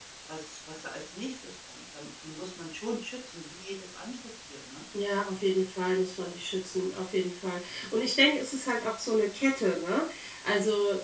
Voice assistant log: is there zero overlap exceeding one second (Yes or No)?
Yes